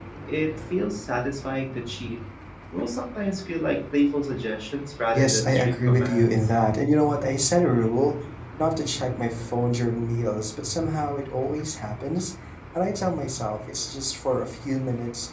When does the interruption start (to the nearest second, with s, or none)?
5 s